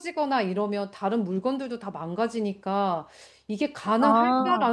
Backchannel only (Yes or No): Yes